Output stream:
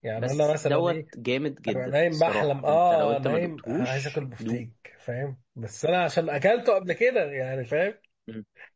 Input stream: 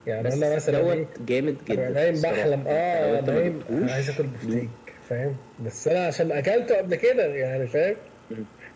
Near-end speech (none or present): none